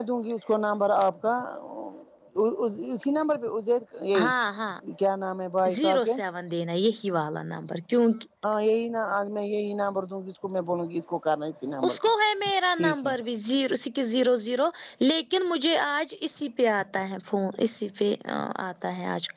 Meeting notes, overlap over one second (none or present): none